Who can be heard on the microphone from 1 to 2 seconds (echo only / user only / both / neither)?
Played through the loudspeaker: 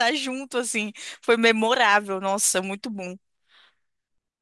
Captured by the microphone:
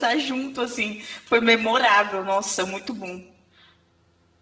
echo only